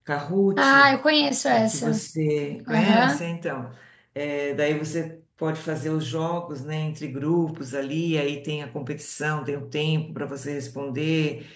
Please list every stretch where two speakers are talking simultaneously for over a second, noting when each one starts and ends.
none

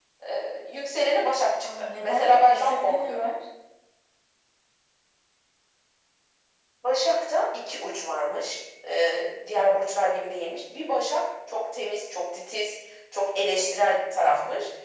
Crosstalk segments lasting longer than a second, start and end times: 1.6-3.3

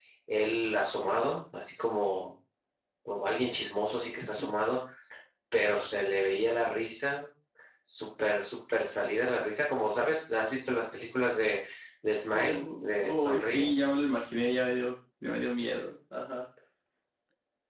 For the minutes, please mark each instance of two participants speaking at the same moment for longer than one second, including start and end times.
12.3-13.7

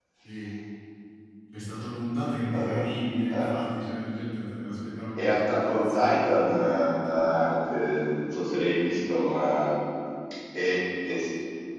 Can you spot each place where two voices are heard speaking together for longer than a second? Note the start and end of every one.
5.2-6.9

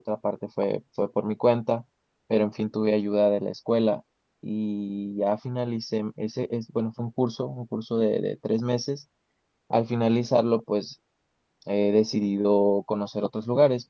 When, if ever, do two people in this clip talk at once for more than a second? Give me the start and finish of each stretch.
none

